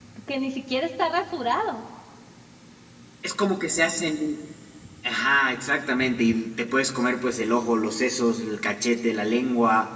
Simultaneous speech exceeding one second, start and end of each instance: none

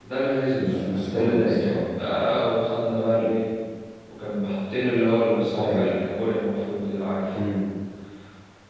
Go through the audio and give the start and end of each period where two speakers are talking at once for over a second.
0.6-1.8

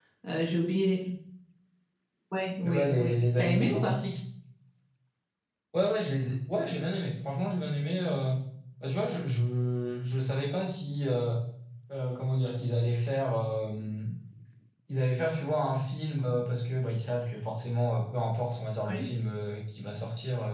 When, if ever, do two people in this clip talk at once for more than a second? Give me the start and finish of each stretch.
2.6-4.0

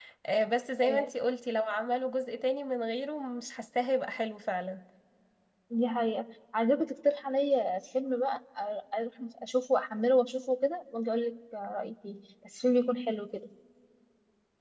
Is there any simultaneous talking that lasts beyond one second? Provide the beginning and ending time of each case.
none

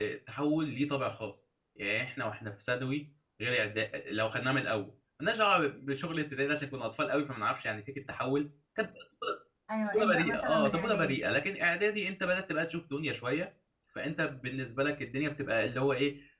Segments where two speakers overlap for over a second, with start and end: 9.9-11.2

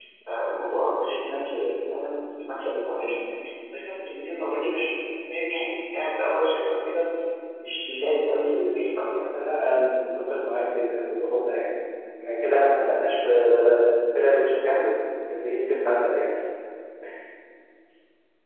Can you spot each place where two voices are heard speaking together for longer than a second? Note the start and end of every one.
none

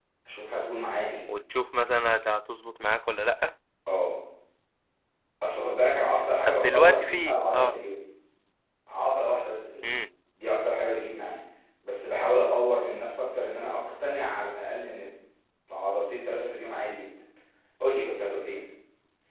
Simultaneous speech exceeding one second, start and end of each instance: 6.4-7.8

